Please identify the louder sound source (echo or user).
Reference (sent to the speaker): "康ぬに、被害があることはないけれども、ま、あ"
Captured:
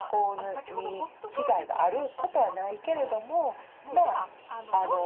echo